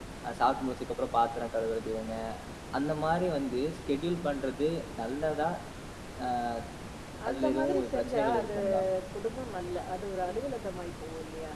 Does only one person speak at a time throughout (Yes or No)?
No